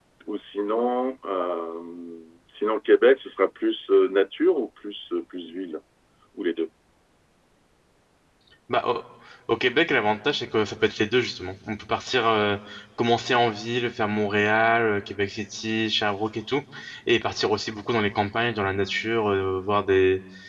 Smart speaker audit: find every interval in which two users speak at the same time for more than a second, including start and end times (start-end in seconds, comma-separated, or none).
none